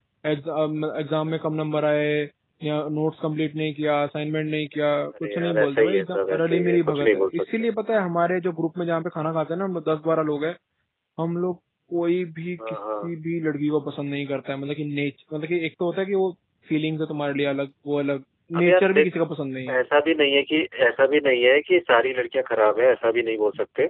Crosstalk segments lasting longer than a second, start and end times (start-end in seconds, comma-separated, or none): 5.2-7.7